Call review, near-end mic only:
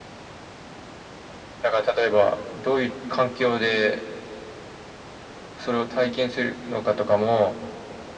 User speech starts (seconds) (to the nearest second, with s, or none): none